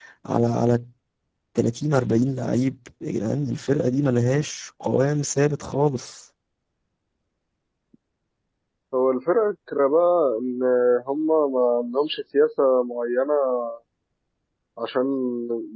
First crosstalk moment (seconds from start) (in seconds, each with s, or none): none